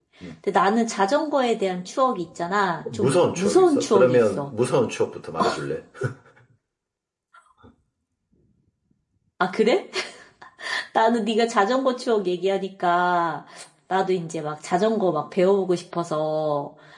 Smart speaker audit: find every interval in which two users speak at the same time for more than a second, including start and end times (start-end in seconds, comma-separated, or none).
2.9-4.5